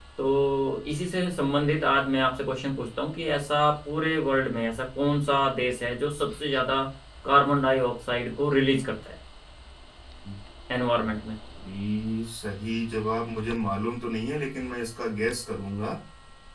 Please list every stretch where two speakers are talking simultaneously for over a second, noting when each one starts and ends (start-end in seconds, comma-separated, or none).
none